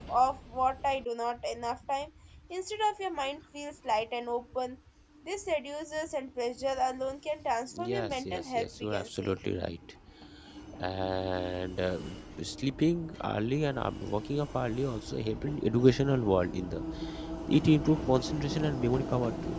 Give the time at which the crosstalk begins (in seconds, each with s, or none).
7.7 s